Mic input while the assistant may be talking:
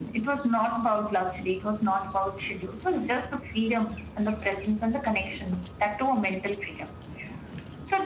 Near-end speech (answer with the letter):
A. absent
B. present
A